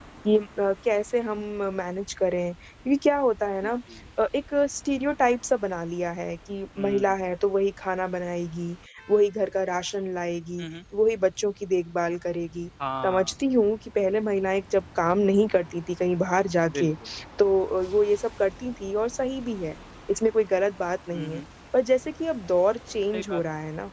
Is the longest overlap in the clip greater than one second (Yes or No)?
No